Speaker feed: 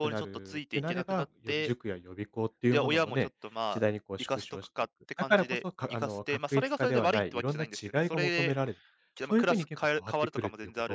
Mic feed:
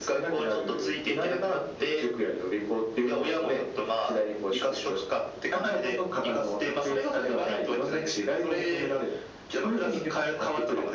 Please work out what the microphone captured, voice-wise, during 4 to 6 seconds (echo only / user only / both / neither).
echo only